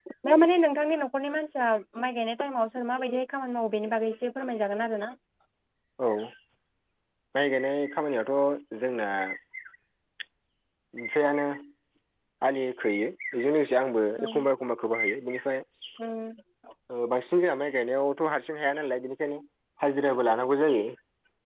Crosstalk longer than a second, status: none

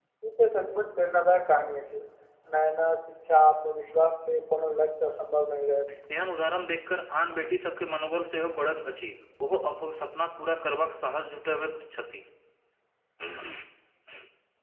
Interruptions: none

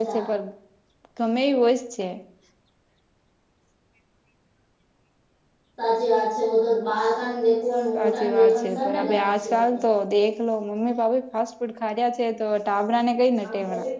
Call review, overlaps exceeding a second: present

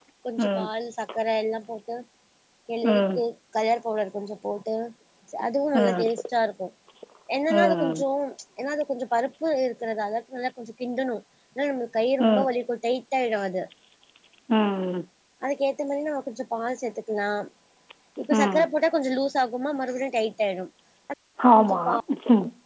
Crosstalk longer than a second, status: none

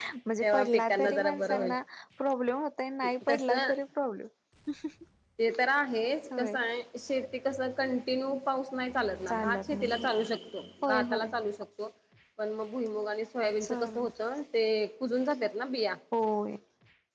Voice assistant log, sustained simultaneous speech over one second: present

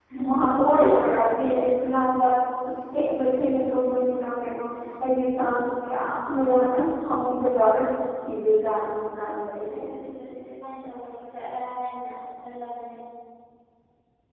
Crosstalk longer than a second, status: none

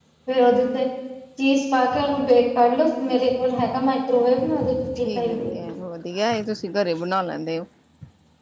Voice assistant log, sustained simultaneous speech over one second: none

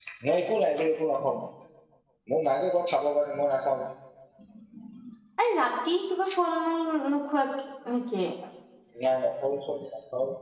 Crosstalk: none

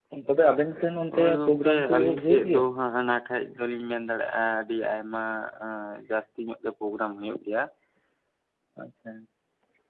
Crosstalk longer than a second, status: present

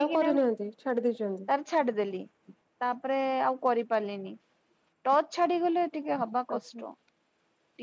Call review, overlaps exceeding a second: none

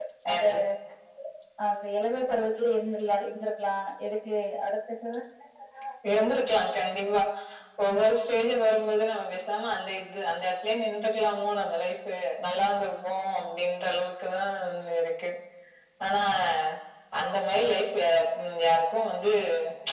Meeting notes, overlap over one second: none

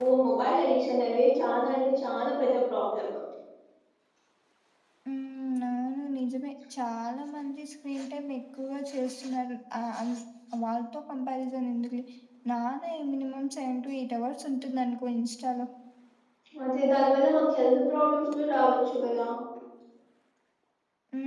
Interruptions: none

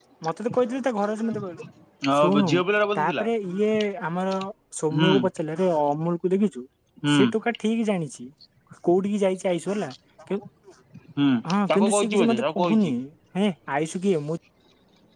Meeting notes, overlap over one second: present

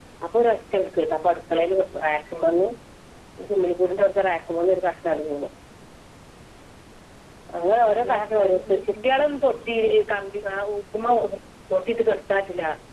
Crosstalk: present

